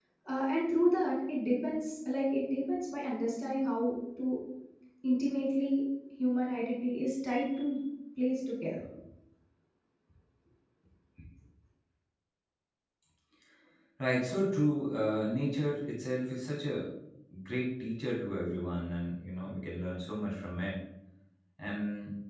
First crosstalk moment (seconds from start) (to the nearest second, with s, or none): none